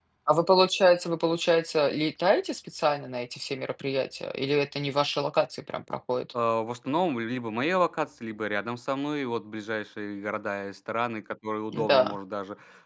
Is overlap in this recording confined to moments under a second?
Yes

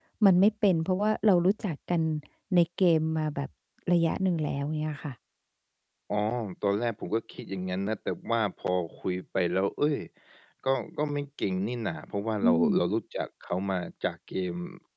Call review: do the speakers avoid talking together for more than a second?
Yes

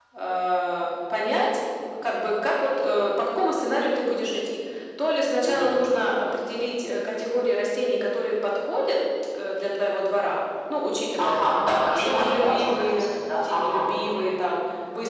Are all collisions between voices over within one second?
No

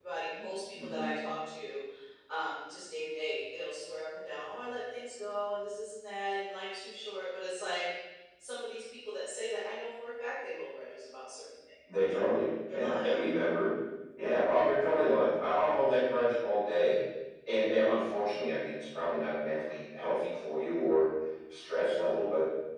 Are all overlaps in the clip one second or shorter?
Yes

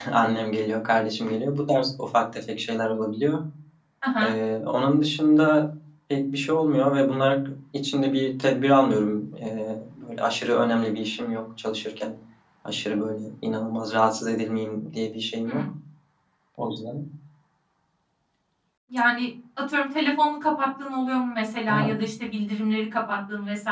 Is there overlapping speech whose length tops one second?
No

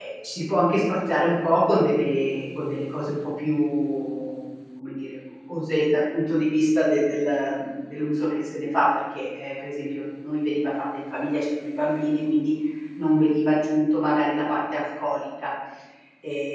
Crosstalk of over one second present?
No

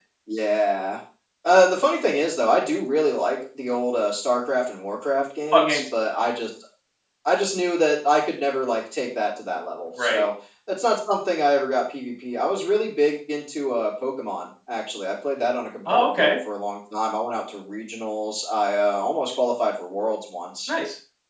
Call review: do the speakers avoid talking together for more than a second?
Yes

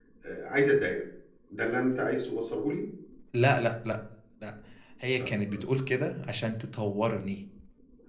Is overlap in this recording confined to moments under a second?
Yes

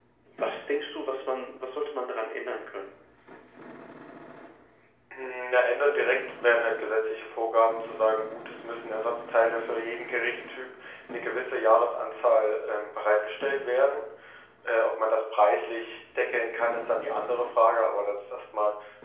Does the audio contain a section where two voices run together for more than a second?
No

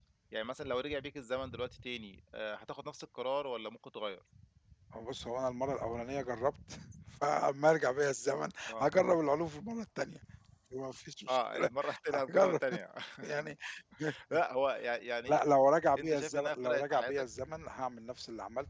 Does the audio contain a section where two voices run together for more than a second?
Yes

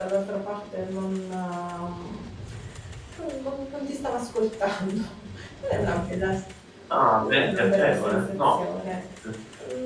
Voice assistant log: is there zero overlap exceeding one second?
No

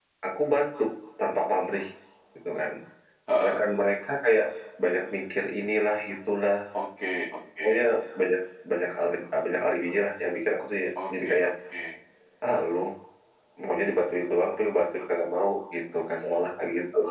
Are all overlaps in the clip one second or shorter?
Yes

